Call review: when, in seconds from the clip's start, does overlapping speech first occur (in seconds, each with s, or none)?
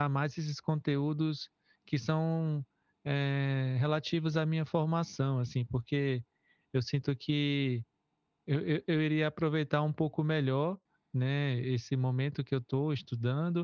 none